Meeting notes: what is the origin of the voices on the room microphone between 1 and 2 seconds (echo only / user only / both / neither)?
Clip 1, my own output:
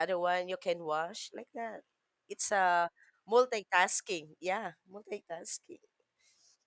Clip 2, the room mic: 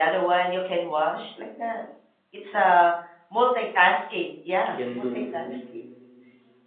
echo only